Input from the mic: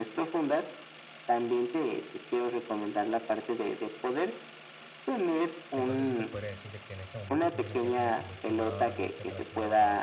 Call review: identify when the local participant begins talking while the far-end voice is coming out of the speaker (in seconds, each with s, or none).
5.7 s